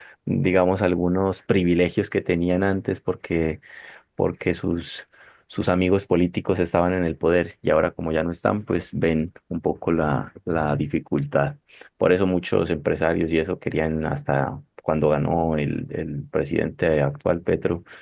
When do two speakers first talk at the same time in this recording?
none

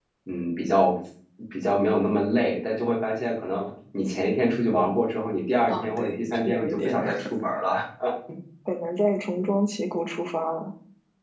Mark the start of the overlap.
5.7 s

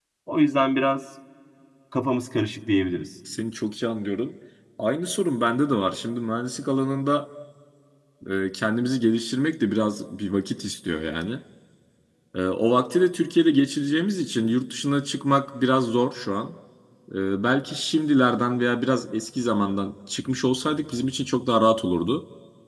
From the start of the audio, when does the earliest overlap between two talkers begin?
none

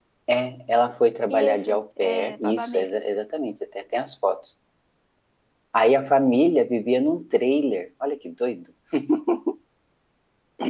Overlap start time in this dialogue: 1.3 s

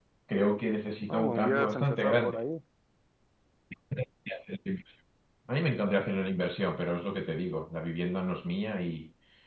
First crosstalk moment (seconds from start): 1.1 s

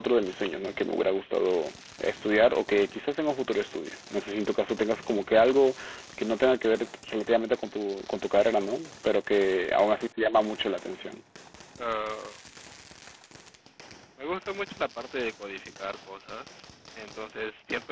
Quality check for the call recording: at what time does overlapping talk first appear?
none

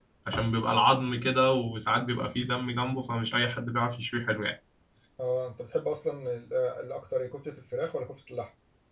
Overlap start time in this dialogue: none

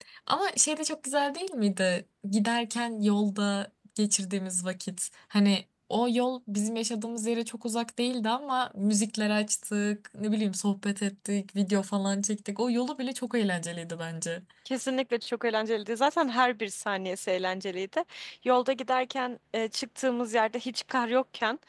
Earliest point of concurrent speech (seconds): none

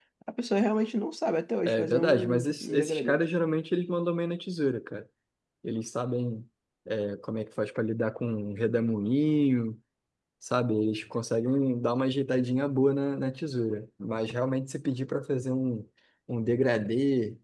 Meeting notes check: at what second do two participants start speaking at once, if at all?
1.7 s

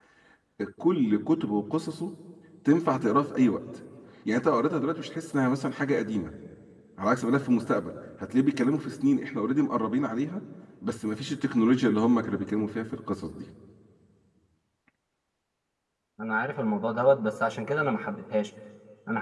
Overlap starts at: none

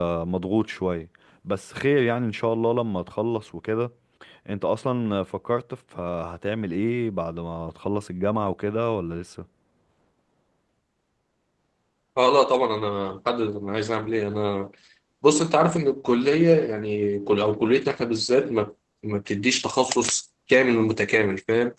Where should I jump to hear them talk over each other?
none

